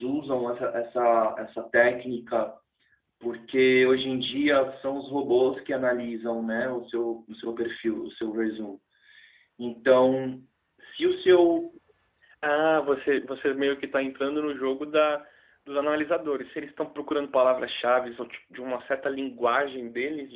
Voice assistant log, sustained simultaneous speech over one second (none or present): none